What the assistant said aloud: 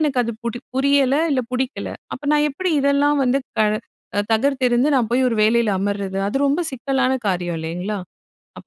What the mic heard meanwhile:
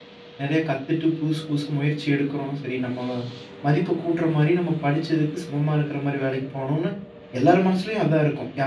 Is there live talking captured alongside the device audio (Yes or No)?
Yes